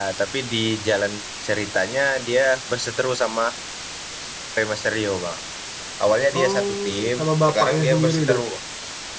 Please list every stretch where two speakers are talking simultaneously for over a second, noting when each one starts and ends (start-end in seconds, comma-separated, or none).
6.4-8.4